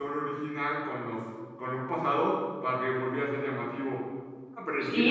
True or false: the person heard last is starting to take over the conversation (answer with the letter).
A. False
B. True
B